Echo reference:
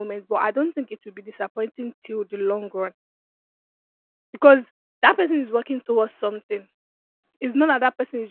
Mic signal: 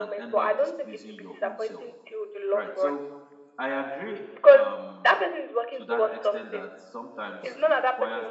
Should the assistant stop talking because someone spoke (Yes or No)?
Yes